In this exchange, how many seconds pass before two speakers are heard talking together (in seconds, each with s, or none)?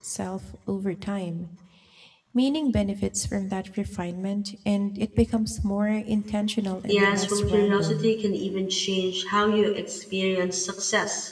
6.9 s